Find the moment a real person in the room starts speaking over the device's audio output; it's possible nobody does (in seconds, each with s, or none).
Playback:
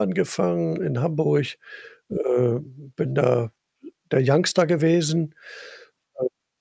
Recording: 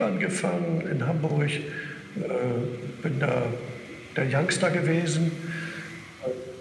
none